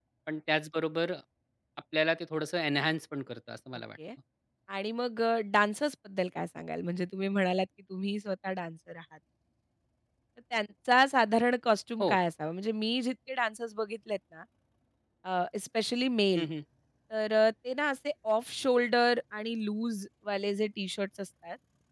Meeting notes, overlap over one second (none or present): none